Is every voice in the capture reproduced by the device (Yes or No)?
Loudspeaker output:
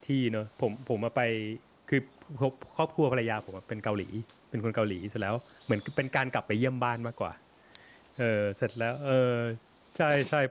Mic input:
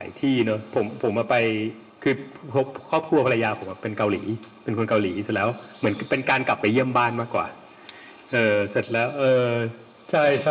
Yes